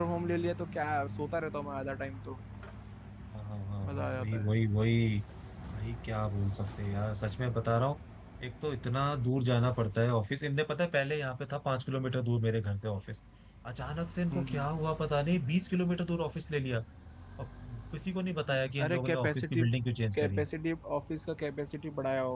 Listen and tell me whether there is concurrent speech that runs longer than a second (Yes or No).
Yes